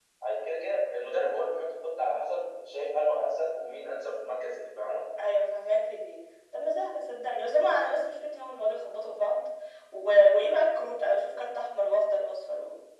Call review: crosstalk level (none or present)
none